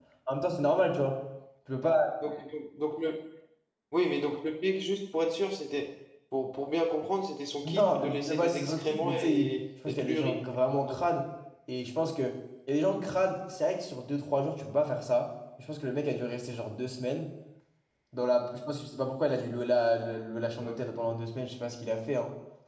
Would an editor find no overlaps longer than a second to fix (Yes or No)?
No